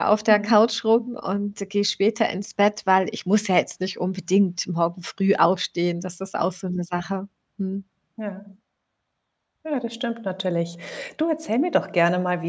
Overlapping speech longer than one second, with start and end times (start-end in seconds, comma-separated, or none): none